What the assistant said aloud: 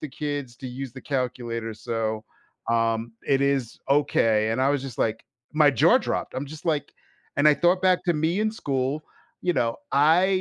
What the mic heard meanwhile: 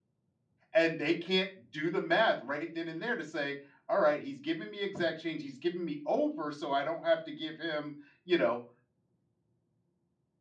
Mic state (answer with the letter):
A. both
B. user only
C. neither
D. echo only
B